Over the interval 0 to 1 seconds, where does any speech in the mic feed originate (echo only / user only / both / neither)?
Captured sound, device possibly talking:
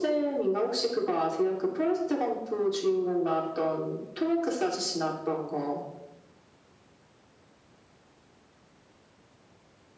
echo only